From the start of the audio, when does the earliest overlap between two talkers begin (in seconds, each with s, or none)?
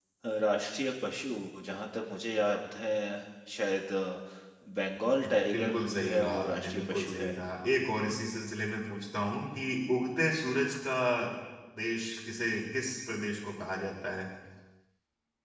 5.5 s